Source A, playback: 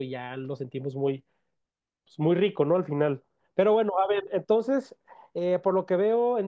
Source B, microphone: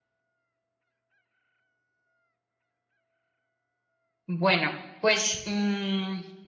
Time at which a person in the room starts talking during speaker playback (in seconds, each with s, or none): 4.3 s